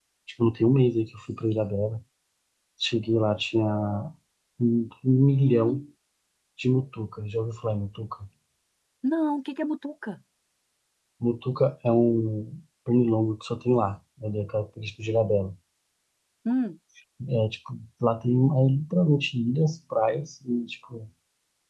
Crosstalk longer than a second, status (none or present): none